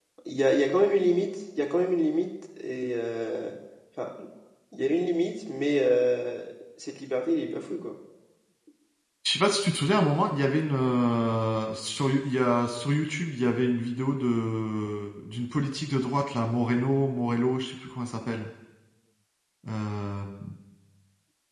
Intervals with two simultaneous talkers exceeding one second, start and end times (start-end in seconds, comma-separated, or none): none